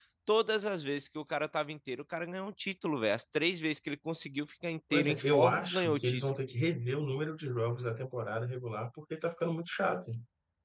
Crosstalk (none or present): present